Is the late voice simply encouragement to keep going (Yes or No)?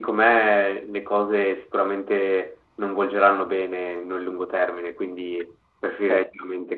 Yes